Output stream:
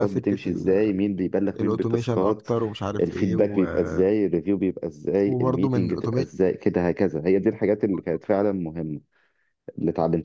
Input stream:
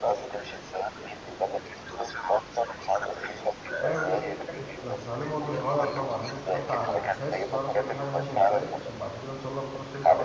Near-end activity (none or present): present